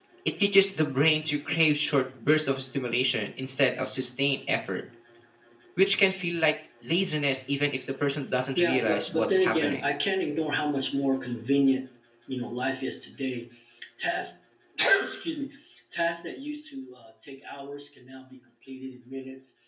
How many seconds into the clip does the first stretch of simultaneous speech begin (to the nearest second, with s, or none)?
9 s